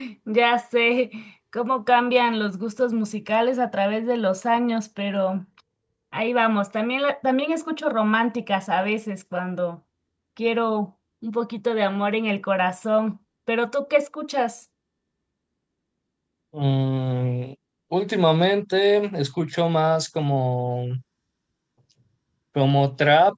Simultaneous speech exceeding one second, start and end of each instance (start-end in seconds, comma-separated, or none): none